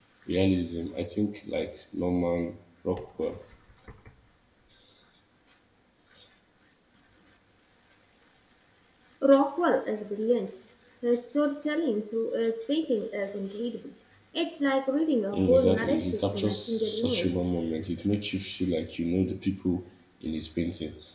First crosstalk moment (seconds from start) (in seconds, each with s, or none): 15.3 s